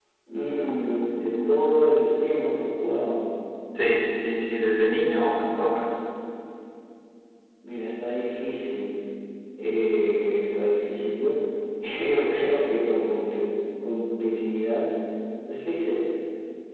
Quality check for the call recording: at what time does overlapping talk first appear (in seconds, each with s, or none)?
none